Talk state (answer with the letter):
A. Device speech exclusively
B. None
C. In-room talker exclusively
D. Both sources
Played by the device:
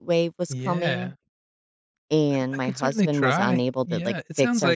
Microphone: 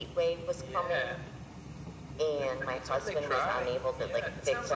A